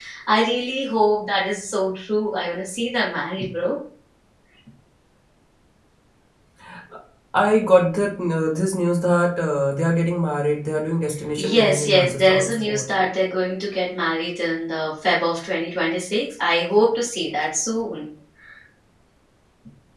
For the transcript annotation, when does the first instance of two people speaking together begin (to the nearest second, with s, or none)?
11 s